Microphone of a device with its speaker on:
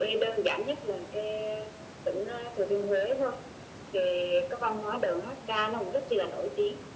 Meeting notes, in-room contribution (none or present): none